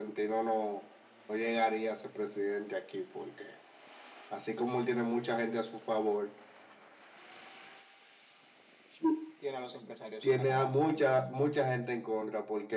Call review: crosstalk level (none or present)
present